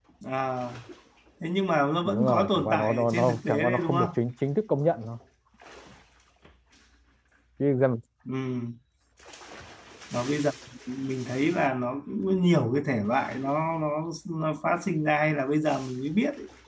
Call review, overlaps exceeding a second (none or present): present